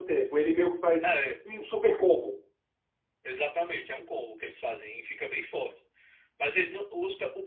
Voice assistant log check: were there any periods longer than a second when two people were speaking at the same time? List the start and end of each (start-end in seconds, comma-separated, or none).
none